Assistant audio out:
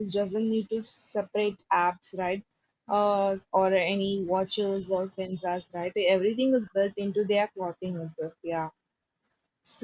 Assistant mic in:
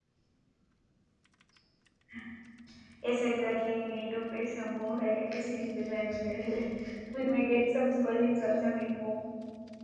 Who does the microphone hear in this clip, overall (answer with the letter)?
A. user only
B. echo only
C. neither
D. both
A